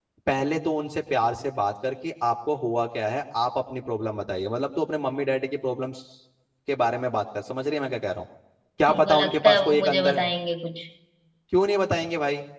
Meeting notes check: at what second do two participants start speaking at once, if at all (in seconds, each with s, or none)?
8.9 s